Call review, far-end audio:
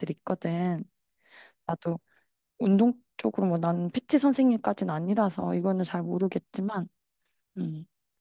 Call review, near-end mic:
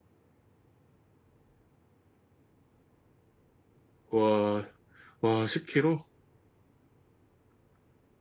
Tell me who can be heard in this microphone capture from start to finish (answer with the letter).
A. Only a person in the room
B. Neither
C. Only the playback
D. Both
A